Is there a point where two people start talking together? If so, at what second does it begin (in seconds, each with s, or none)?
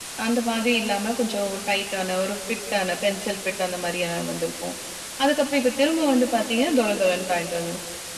none